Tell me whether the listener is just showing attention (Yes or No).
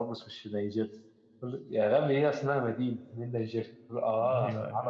Yes